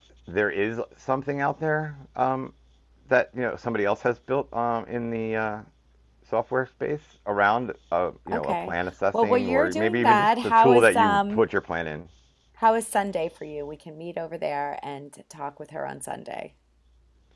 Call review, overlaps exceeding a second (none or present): present